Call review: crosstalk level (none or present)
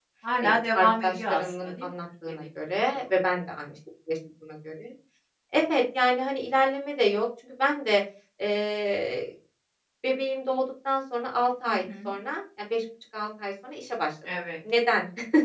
present